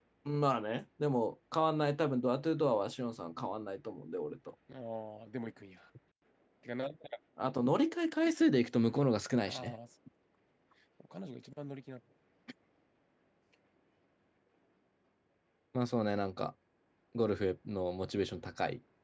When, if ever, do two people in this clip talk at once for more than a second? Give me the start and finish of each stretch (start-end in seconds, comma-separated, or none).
none